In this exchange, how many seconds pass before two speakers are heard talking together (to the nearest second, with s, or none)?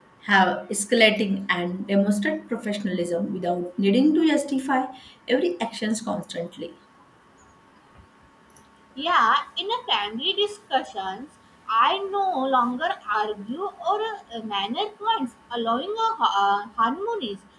none